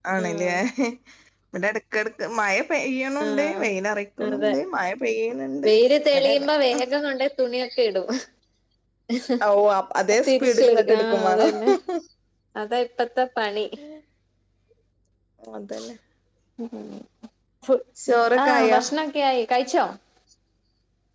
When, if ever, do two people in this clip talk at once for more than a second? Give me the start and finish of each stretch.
10.3-11.5

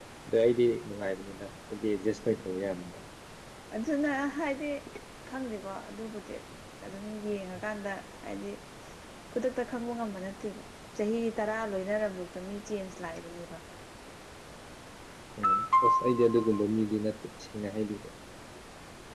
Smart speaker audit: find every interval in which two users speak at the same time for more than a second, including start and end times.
none

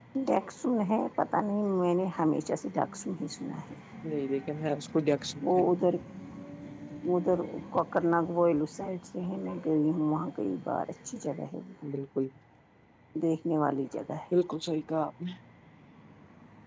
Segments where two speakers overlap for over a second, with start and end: none

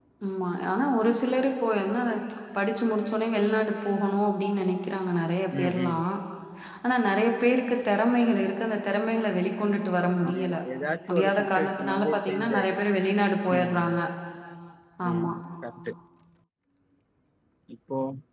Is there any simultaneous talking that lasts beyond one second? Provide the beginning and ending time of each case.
11.1-12.8

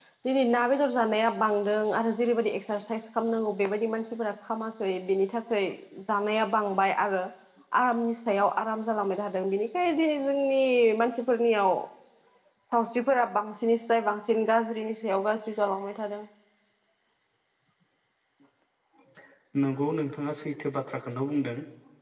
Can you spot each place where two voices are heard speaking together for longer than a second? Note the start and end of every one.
none

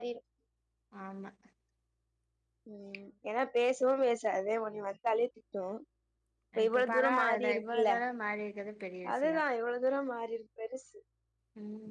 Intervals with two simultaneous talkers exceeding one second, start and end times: 6.7-7.9

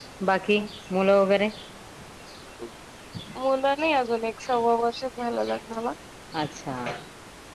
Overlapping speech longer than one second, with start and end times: none

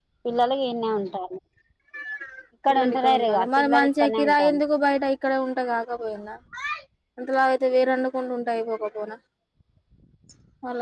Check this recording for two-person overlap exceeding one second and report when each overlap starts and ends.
2.7-4.6

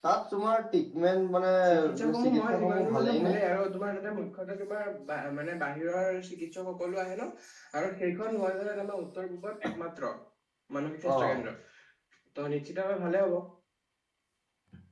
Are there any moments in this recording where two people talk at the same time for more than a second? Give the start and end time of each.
1.7-3.3

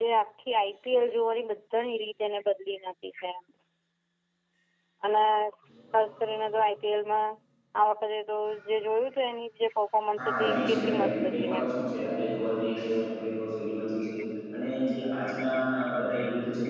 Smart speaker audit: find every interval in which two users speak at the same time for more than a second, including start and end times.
10.2-11.7

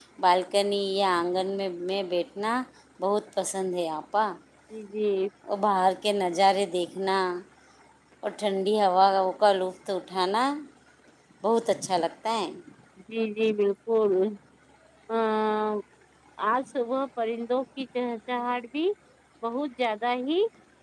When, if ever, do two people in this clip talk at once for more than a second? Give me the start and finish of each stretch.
none

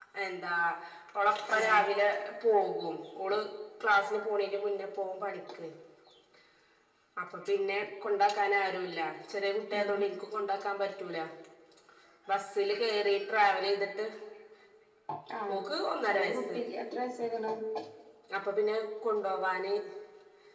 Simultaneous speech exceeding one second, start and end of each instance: none

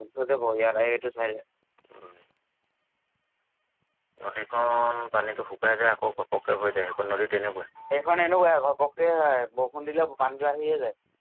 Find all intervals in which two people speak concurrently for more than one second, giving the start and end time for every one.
none

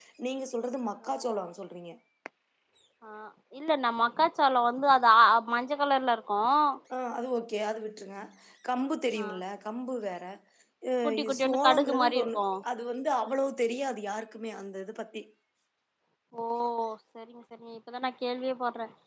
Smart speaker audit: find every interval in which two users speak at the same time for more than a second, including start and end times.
11.0-12.4

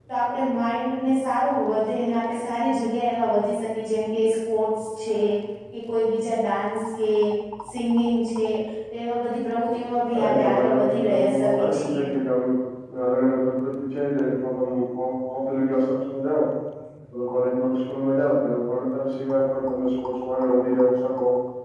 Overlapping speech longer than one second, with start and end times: 10.1-12.1

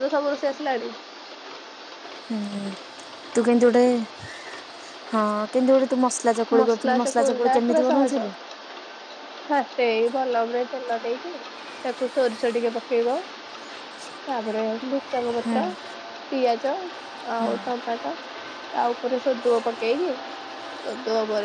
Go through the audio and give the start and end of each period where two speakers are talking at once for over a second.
6.6-8.3

